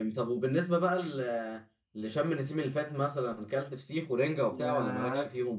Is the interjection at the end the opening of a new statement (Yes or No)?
Yes